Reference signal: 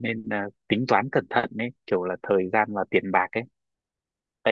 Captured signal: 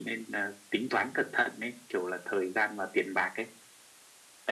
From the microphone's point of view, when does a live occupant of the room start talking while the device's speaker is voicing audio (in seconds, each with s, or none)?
none